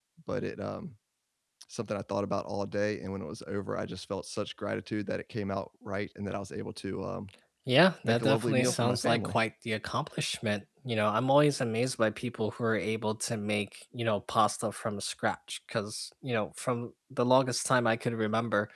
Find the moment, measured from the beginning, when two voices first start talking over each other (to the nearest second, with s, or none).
8 s